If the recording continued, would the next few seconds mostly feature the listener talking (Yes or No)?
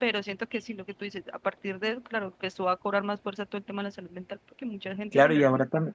Yes